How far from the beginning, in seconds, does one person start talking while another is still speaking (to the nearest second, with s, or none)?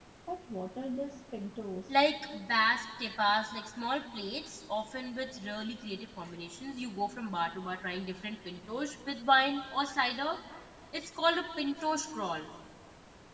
none